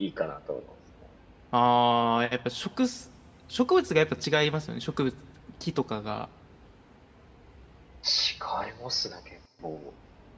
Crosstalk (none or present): none